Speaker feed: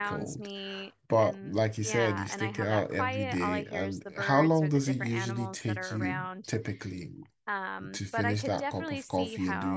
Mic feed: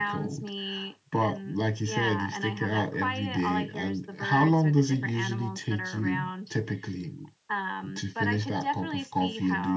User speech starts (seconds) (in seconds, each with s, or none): none